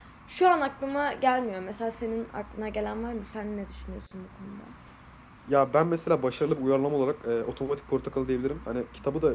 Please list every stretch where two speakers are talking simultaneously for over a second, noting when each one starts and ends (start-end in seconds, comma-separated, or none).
none